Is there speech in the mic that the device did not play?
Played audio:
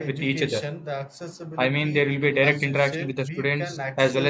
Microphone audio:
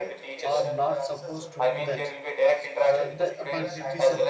Yes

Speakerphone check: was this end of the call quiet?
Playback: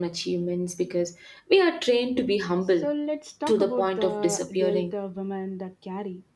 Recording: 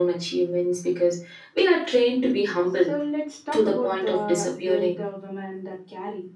Yes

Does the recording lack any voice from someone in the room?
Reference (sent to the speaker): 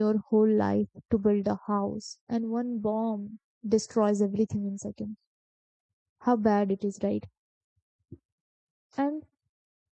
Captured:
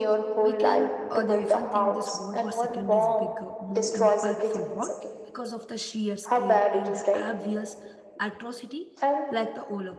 No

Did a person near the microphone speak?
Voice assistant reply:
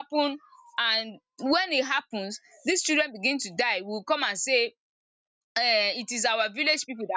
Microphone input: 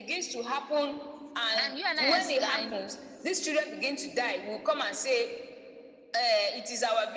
Yes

